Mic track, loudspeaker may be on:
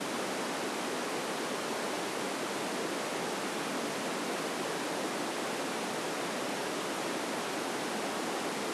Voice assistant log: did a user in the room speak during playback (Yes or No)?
No